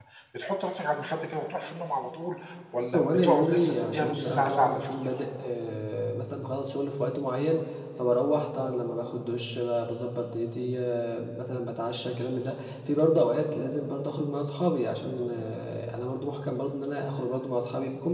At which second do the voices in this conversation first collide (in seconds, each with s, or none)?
2.9 s